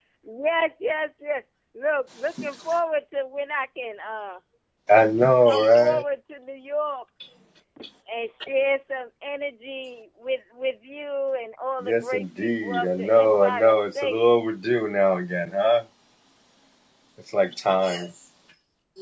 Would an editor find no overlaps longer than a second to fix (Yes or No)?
No